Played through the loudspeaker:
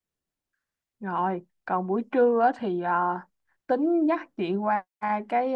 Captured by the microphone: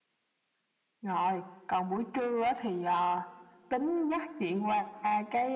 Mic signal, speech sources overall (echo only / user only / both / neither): echo only